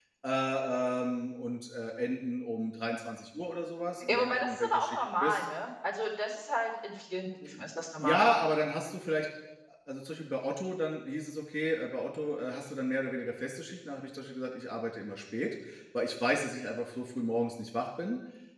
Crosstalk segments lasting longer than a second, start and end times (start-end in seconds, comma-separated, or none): 4.1-5.4